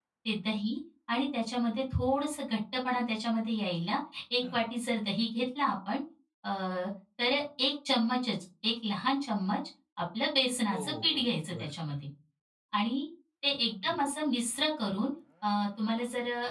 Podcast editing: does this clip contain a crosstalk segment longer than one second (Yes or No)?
Yes